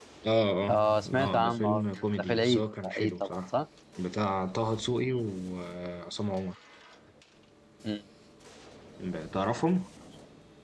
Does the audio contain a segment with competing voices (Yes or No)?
Yes